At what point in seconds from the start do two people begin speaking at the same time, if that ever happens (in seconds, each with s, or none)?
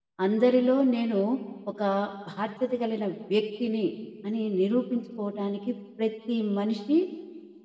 none